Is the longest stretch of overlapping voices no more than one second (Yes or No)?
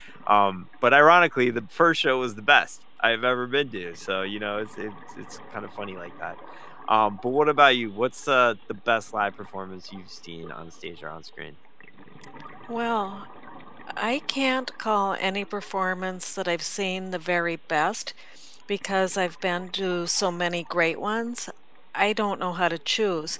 Yes